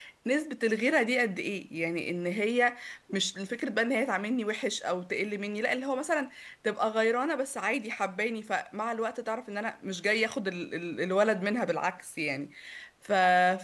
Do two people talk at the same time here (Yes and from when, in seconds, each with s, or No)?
No